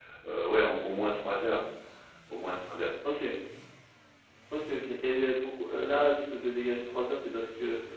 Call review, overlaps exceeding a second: none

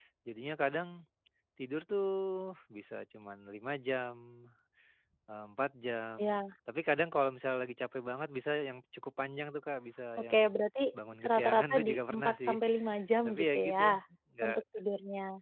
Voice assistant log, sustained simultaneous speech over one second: present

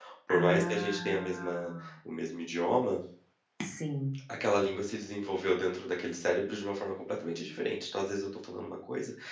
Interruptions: present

